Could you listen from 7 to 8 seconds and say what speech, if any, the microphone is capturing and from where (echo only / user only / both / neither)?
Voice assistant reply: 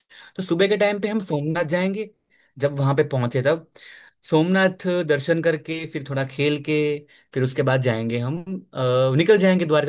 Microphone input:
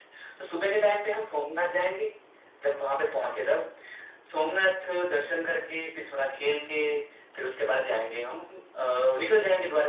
echo only